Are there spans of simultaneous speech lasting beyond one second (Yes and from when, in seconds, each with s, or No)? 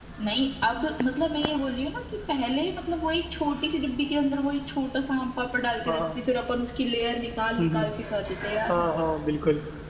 No